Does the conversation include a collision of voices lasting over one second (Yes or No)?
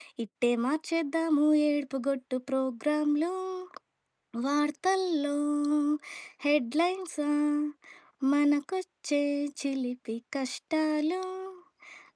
No